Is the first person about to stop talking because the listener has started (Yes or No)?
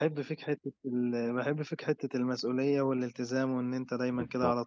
Yes